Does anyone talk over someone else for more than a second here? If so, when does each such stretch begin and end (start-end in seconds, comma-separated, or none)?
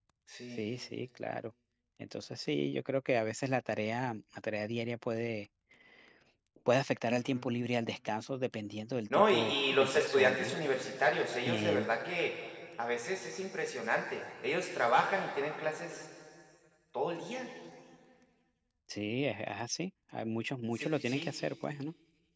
9.1-10.5